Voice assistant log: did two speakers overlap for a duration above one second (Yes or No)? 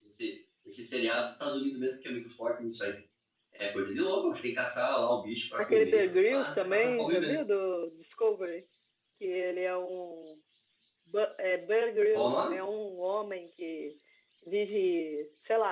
Yes